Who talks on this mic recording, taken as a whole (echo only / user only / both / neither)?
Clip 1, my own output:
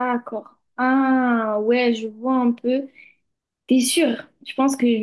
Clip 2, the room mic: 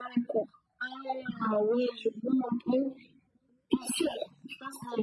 echo only